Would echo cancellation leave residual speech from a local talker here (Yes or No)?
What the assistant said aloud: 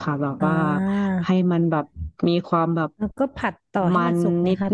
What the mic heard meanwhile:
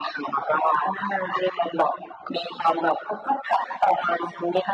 No